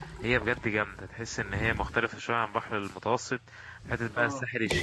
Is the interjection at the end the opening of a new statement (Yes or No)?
No